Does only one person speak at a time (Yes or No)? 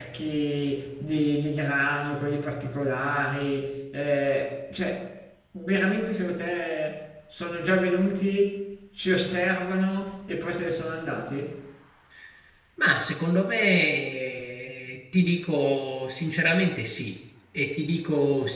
Yes